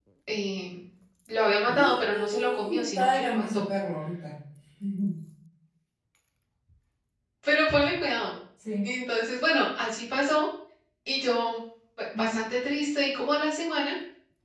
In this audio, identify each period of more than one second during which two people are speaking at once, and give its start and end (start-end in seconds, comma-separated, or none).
1.7-3.6